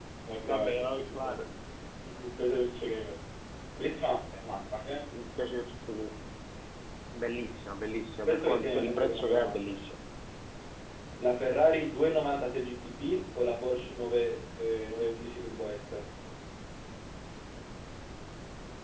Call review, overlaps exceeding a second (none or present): present